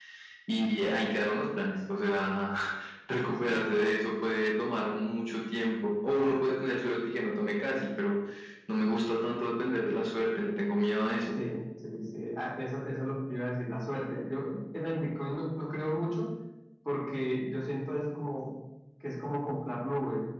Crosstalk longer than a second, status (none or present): none